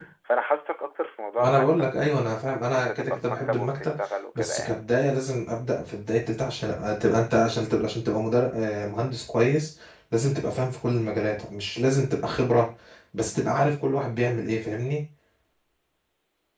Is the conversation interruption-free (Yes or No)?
No